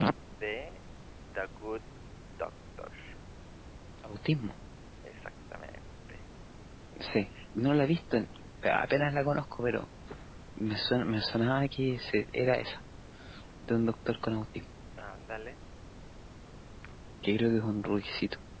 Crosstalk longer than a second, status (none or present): none